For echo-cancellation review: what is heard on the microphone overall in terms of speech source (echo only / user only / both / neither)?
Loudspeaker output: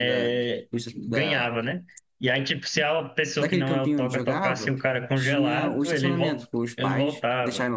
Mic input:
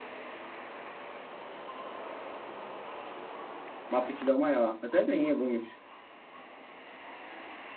user only